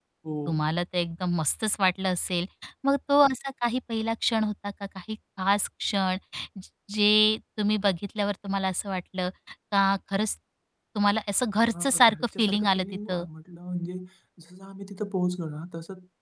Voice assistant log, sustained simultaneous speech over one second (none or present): present